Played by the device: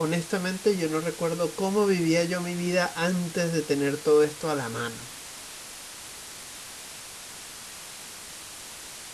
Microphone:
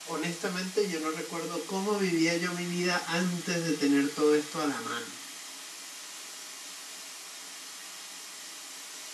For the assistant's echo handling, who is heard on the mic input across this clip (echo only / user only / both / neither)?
echo only